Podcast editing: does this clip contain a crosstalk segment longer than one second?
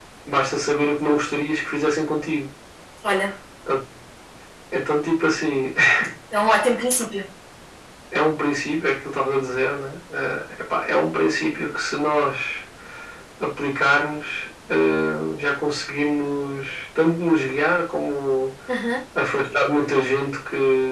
No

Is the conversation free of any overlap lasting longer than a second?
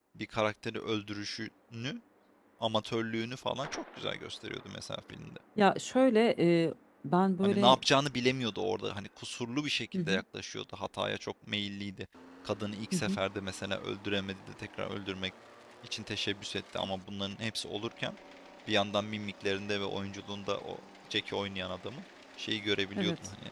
Yes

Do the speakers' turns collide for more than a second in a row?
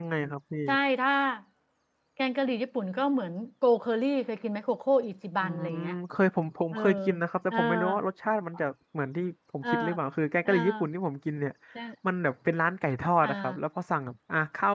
No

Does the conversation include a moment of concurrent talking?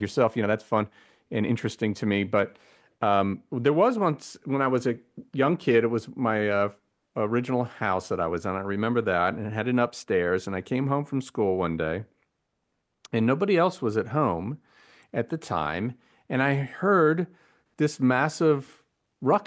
No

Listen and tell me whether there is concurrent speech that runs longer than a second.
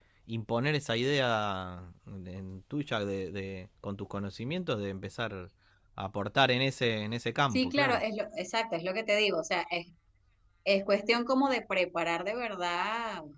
No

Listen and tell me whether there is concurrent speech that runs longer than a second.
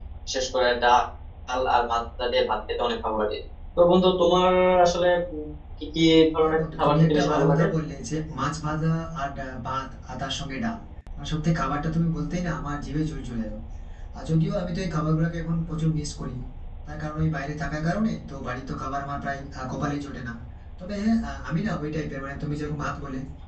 Yes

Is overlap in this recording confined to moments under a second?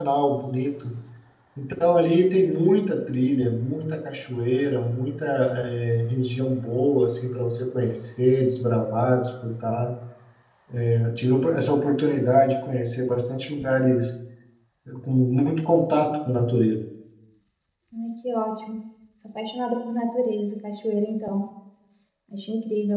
Yes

